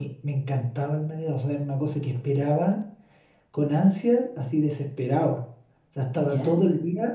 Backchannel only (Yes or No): Yes